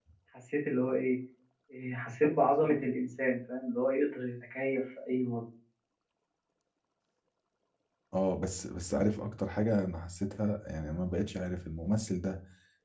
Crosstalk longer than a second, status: none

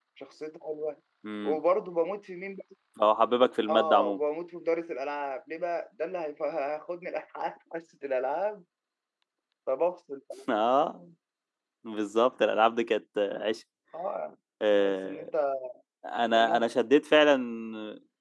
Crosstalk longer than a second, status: none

